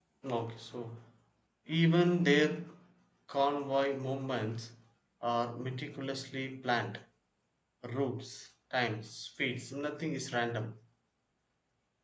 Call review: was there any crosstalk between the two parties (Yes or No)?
No